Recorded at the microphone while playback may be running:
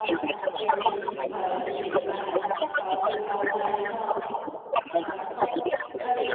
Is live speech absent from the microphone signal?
No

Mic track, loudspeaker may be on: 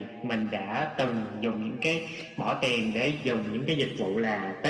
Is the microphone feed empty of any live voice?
Yes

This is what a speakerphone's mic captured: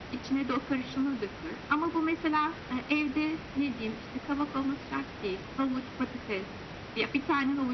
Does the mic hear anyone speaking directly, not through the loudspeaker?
No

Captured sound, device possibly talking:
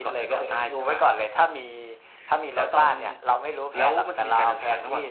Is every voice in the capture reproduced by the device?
Yes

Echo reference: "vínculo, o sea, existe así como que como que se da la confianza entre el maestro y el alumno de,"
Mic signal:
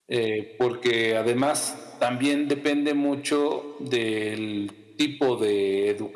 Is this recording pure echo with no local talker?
No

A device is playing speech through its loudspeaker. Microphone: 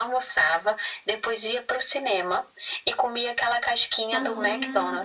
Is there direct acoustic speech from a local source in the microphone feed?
Yes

